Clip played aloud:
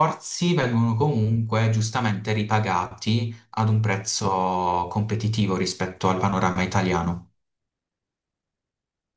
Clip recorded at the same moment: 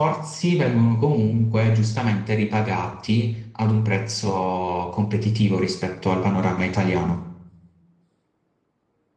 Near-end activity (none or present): none